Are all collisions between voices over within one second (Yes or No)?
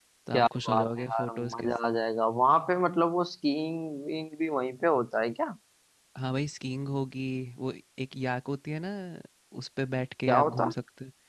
No